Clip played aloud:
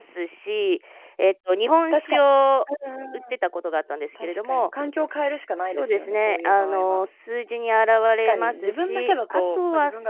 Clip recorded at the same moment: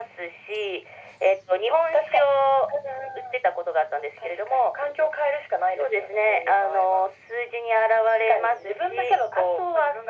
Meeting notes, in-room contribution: none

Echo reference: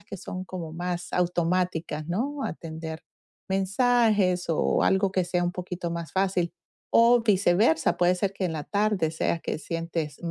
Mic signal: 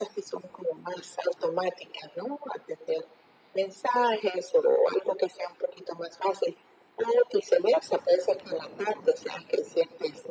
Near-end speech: none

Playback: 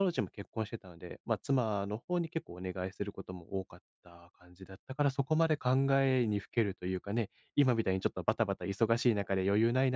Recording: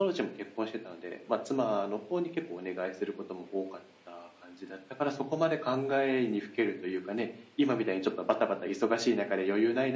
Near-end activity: none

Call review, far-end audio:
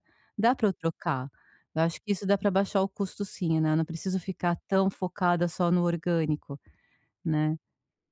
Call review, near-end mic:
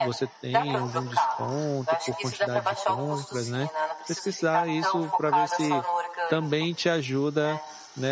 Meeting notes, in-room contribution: present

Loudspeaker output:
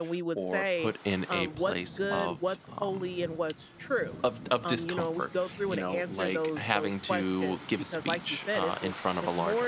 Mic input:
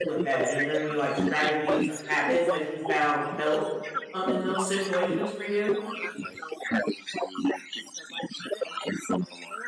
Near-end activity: present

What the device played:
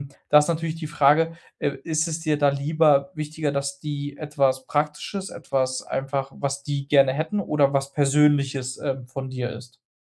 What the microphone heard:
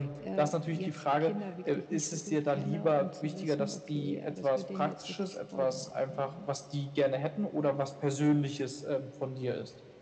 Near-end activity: present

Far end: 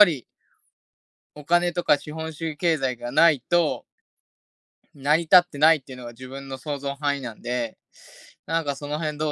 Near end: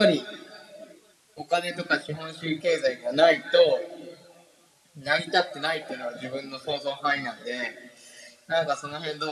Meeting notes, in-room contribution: none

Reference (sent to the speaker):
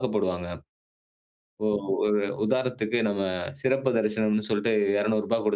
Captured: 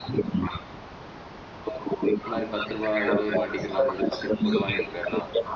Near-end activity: present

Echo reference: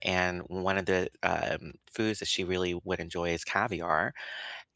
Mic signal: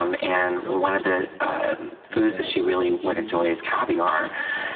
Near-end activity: present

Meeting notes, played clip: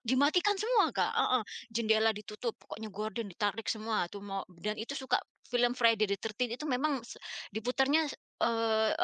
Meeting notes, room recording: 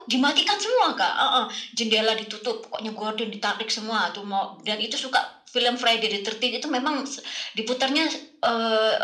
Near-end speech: none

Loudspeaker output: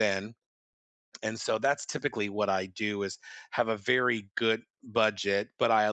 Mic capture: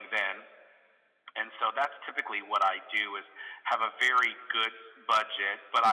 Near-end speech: none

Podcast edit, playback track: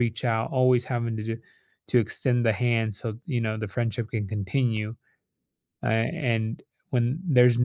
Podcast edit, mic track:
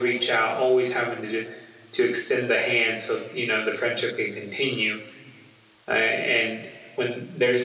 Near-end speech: none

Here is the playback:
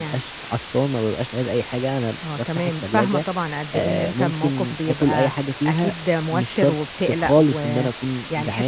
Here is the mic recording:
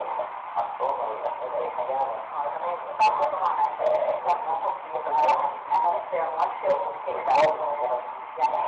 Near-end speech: none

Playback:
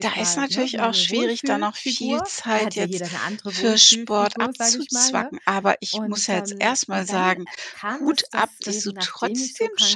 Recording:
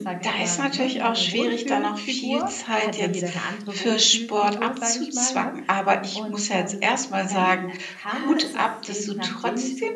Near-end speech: present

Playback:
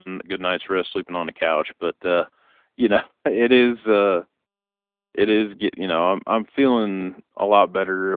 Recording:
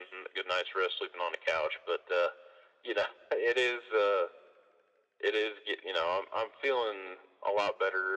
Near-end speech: none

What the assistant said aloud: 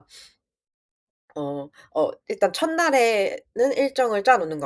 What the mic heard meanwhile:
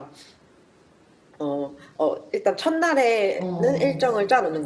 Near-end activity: present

